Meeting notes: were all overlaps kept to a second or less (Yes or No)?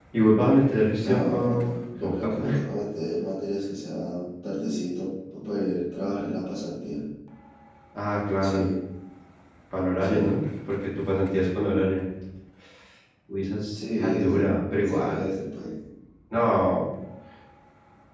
No